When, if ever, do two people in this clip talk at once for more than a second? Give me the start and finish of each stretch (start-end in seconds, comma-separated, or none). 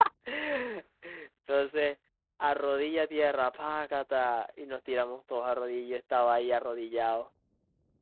none